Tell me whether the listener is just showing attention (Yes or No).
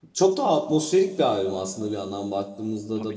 Yes